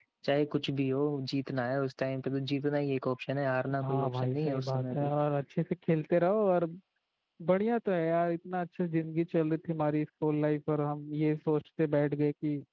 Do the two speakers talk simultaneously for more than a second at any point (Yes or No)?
Yes